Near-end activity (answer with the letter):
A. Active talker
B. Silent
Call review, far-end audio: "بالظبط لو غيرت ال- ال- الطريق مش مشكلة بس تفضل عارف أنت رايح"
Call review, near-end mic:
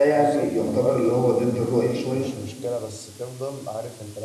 A